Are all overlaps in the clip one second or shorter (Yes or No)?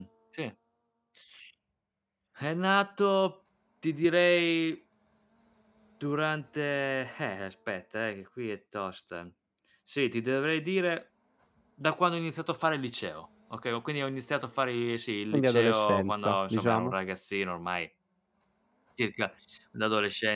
No